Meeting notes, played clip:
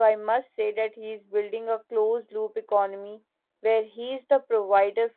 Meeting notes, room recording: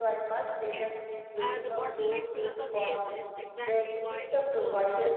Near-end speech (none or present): present